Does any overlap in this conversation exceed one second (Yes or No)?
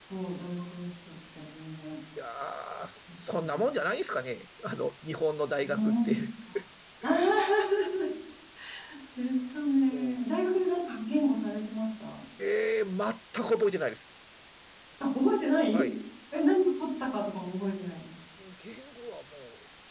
No